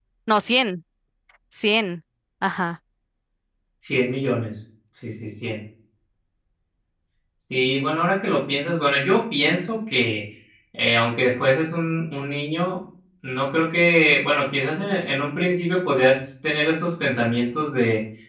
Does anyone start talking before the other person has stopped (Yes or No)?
No